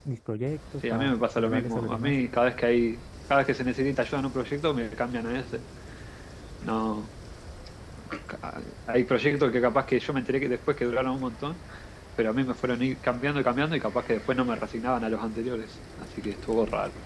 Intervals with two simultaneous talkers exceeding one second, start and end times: 0.9-2.1

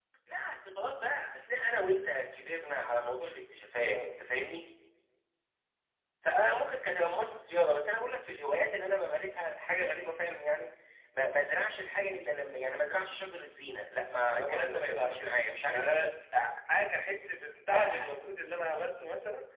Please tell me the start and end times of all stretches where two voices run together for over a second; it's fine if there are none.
14.3-15.9

